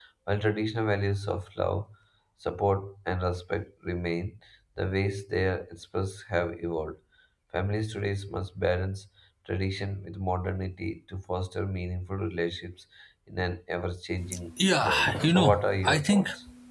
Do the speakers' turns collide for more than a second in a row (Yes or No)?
Yes